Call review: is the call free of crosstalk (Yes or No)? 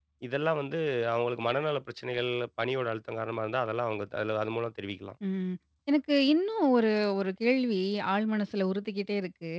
Yes